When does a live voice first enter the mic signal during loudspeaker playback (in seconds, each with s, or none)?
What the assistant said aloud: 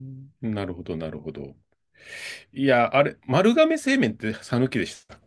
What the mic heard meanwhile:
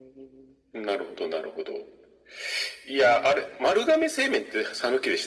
none